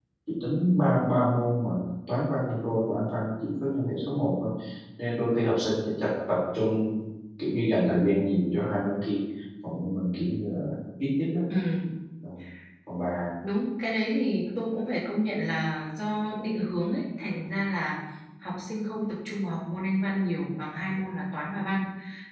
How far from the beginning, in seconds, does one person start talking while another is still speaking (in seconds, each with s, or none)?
none